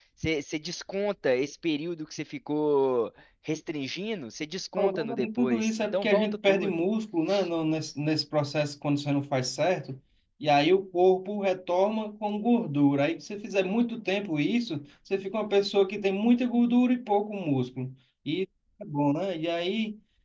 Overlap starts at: 5 s

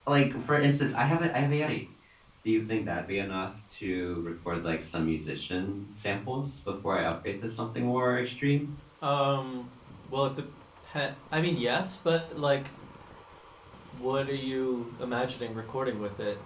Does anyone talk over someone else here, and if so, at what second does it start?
none

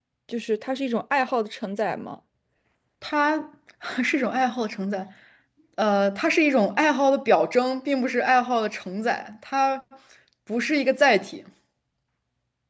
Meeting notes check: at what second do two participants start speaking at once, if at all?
none

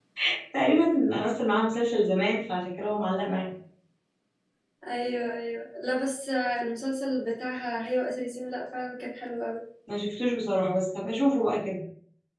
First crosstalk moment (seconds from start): none

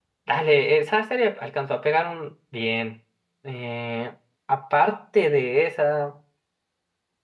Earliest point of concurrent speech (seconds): none

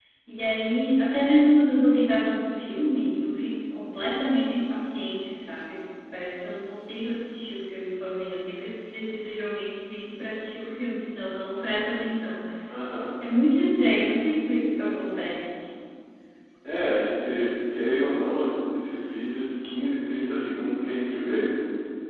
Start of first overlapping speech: none

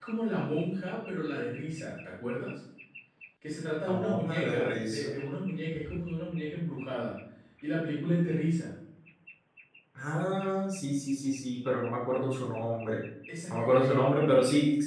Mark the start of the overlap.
4 s

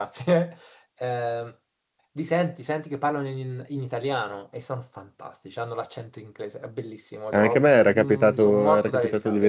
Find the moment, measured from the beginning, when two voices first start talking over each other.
7 s

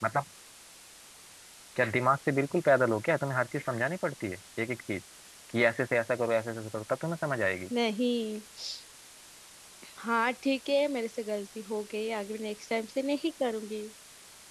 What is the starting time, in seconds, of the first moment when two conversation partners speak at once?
none

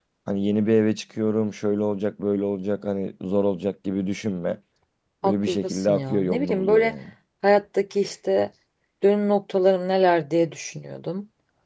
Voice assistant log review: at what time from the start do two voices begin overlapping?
5 s

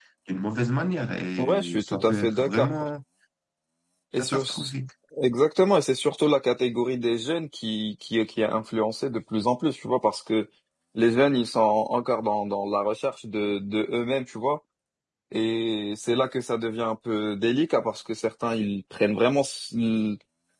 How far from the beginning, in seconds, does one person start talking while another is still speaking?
1 s

